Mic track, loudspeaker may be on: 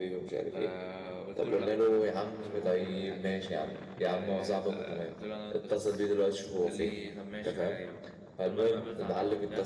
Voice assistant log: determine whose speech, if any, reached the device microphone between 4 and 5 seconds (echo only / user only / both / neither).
both